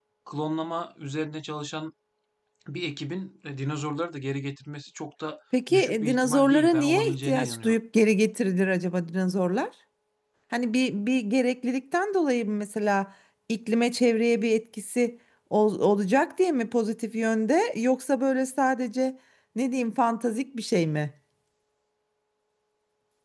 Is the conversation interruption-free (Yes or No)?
No